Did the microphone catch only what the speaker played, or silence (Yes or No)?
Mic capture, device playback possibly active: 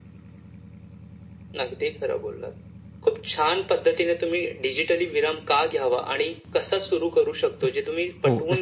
No